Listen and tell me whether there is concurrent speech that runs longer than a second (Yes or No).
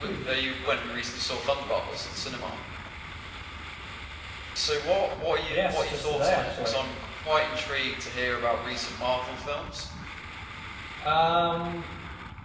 Yes